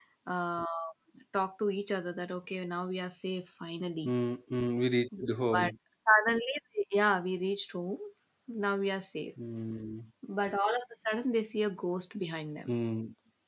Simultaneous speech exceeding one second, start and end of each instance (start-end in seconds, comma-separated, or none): none